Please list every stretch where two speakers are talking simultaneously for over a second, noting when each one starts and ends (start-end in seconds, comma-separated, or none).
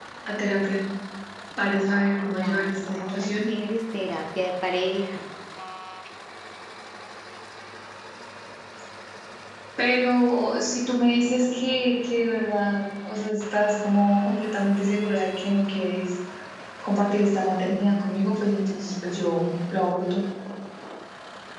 2.3-3.5